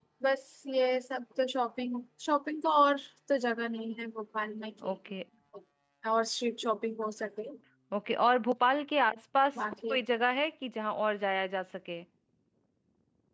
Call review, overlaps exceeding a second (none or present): none